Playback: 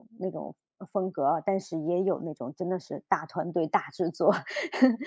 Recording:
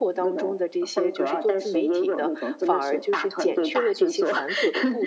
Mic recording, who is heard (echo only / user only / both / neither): both